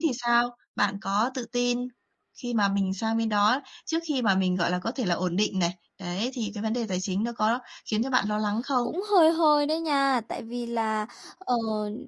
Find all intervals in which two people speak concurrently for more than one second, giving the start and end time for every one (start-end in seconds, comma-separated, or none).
none